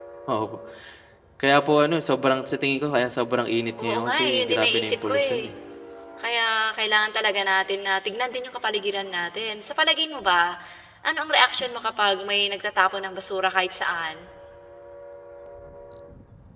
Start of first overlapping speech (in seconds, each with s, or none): 3.8 s